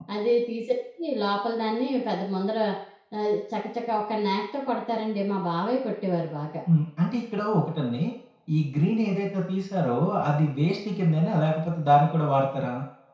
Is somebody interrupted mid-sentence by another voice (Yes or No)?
No